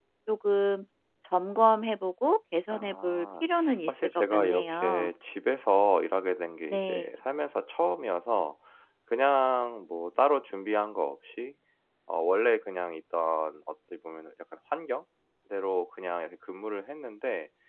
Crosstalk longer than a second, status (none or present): present